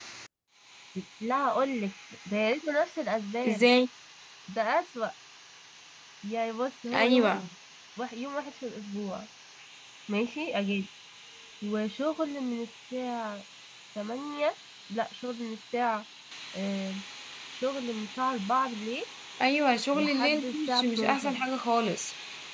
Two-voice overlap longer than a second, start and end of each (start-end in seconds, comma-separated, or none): 19.9-21.4